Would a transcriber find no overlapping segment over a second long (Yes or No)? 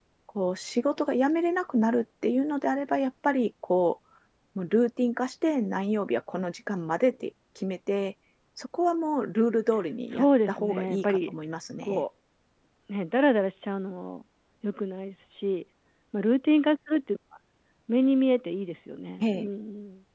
No